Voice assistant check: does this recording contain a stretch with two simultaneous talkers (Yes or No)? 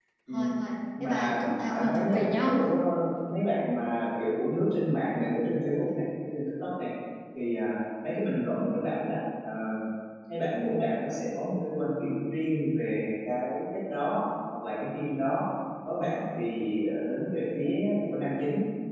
Yes